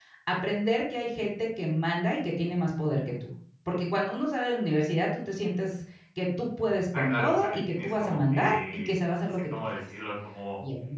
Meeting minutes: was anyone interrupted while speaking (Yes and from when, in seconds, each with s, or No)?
Yes, from 6.9 s